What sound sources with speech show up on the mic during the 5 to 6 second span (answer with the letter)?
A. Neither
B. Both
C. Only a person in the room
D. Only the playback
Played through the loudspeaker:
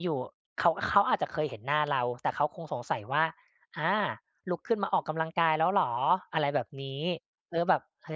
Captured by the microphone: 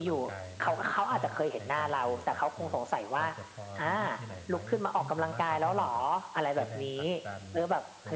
B